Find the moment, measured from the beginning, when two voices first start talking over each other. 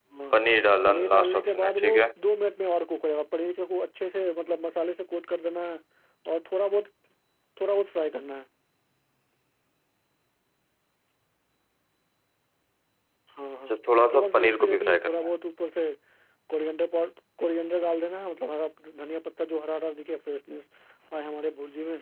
0.8 s

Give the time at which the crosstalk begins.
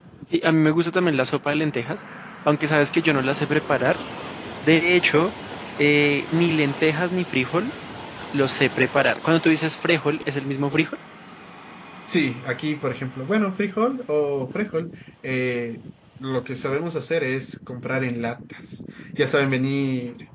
none

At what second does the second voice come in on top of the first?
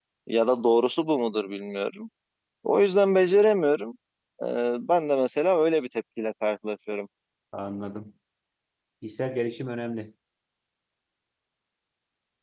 none

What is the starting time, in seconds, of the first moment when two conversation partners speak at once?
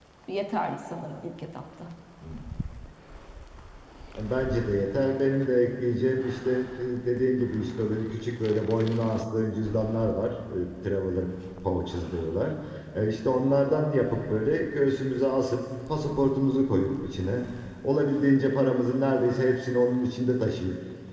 none

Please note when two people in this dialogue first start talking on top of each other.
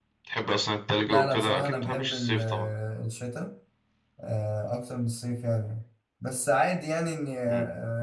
1.1 s

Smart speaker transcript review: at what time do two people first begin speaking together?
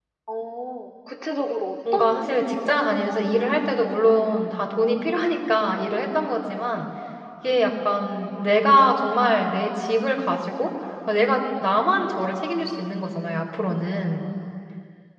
1.8 s

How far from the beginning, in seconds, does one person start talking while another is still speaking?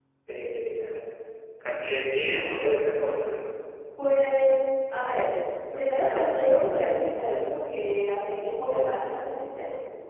none

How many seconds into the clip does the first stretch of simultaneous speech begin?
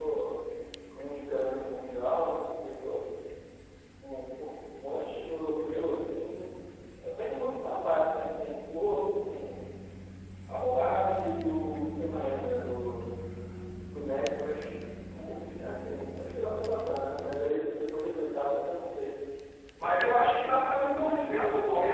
none

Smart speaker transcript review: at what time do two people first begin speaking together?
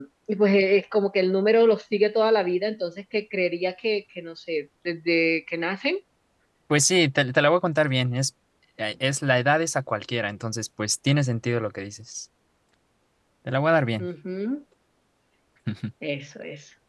none

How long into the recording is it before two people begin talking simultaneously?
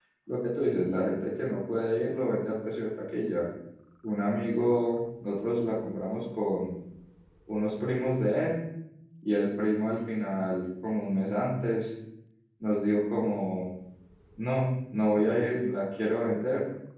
none

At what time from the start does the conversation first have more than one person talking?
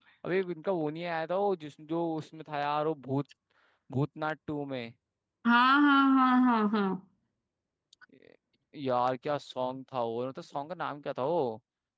none

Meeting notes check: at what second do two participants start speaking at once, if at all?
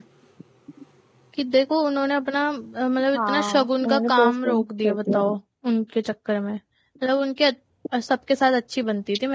3.1 s

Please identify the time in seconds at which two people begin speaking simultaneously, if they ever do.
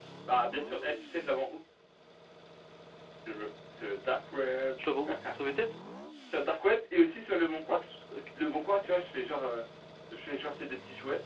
none

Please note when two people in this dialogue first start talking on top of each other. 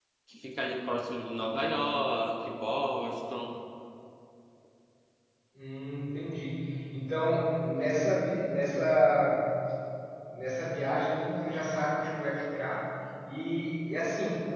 none

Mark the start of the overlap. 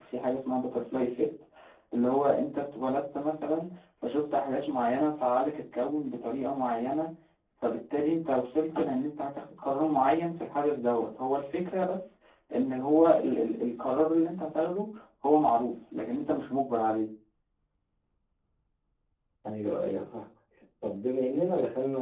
none

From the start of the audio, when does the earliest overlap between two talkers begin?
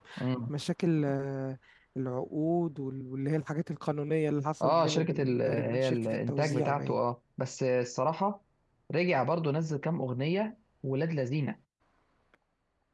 4.6 s

